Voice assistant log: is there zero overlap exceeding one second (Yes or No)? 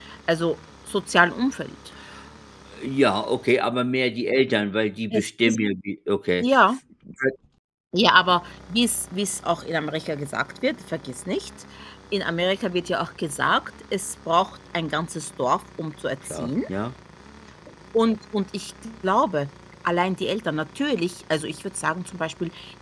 Yes